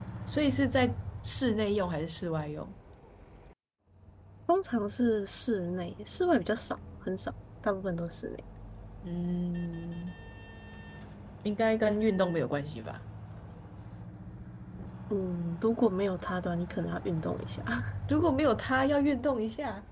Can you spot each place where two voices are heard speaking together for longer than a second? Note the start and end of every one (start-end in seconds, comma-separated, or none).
none